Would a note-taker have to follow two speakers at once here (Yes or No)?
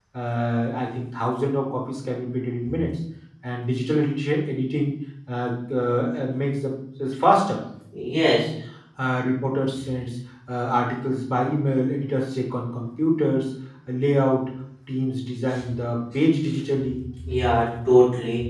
No